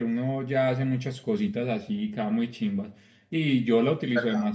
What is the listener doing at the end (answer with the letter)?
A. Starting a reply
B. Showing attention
B